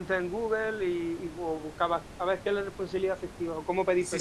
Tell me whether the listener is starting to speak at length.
Yes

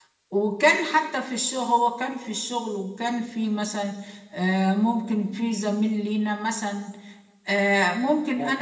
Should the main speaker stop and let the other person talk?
No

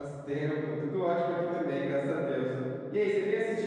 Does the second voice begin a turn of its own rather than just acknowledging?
No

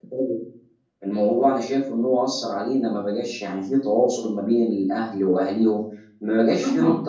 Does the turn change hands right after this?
Yes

